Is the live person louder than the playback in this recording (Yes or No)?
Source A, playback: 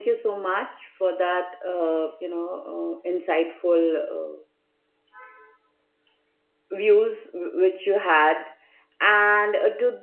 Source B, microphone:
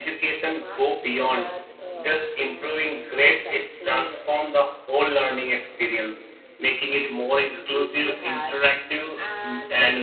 Yes